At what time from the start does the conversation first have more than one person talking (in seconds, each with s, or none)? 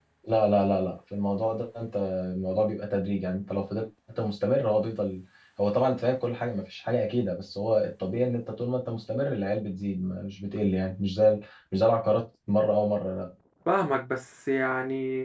none